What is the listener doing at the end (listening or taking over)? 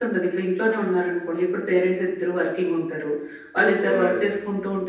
listening